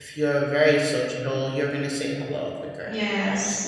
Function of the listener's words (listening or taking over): taking over